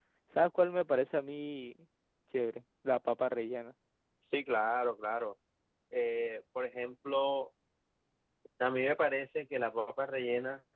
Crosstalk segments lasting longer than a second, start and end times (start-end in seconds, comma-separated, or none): none